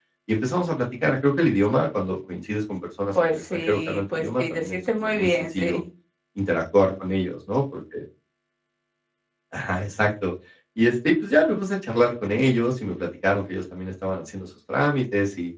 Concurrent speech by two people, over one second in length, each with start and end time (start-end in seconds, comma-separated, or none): 3.2-5.8